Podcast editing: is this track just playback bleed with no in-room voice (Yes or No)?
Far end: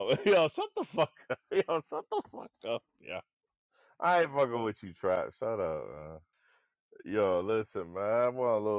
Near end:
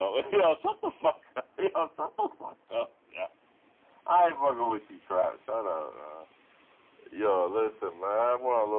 Yes